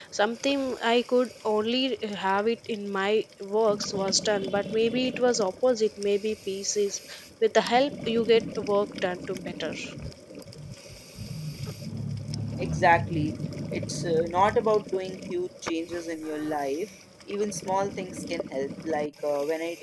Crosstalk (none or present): none